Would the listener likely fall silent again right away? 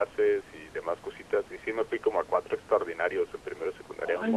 Yes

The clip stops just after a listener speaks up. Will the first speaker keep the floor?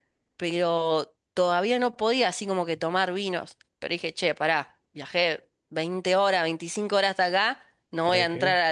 Yes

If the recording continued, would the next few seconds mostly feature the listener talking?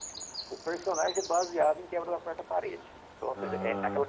No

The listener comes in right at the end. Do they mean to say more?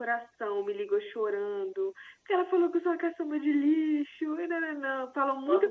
Yes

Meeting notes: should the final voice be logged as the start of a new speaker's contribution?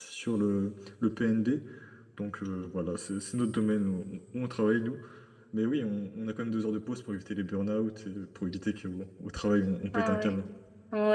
Yes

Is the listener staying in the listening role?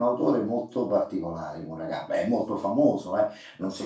No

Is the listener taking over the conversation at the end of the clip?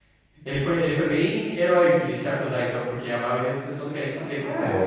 Yes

